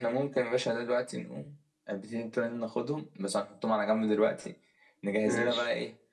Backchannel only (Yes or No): Yes